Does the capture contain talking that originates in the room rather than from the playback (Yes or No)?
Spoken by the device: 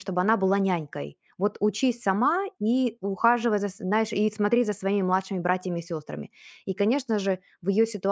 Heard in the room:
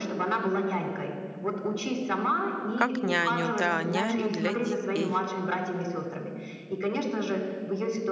Yes